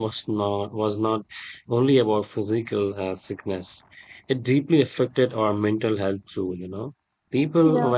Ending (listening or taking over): listening